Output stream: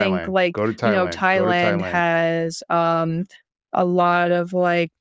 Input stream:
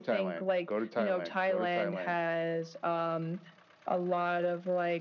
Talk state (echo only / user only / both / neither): echo only